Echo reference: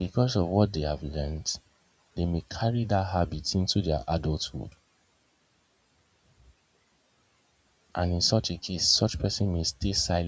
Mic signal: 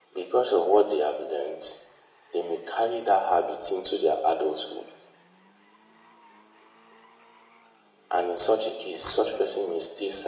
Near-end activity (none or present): none